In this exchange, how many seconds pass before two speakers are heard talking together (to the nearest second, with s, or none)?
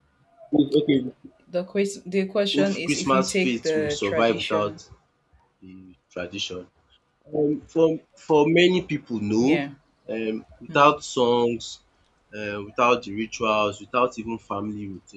3 s